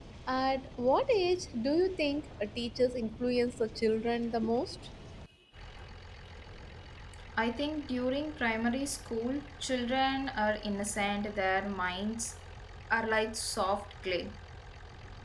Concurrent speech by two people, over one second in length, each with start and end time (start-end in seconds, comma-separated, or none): none